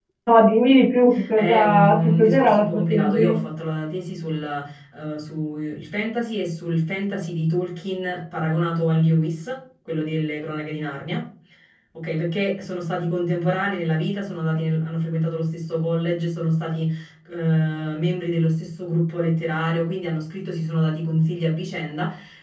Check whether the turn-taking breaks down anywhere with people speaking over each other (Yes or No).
Yes